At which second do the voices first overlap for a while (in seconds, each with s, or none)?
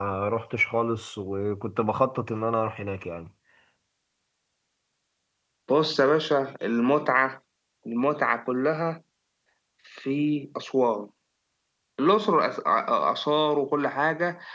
none